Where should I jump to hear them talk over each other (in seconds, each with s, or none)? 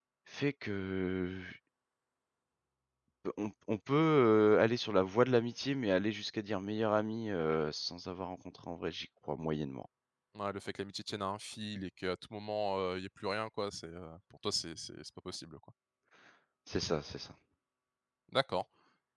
none